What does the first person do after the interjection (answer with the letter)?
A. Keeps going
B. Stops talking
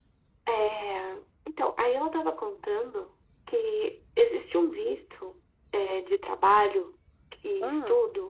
A